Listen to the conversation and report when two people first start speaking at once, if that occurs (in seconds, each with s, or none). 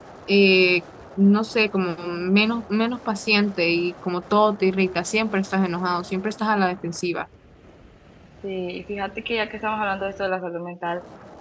none